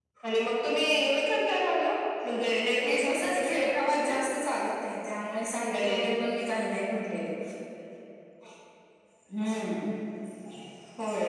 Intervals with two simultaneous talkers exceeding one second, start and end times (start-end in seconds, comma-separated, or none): 2.8-4.1